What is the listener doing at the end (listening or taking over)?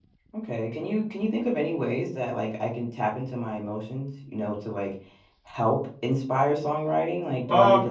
taking over